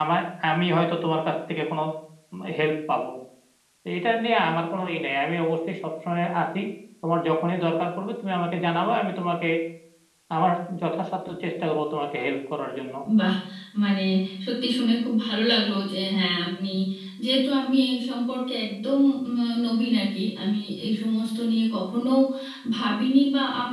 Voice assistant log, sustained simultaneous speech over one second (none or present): none